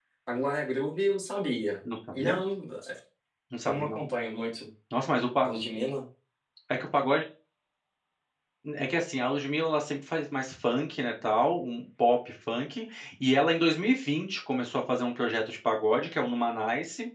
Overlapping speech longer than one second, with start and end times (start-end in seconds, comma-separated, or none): none